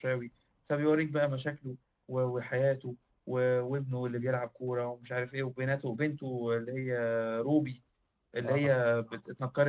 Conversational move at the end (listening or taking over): listening